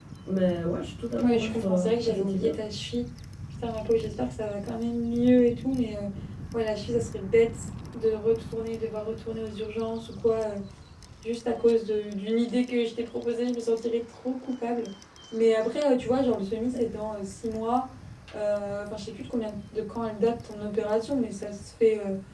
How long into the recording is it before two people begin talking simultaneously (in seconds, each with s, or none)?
1.2 s